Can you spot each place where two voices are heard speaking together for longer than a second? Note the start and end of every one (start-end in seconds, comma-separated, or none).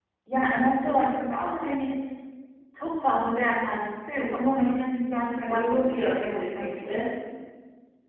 5.5-7.0